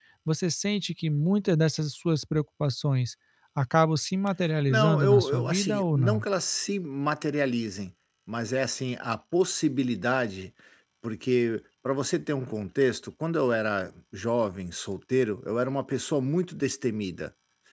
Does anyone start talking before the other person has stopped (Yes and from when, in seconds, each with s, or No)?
Yes, from 4.7 s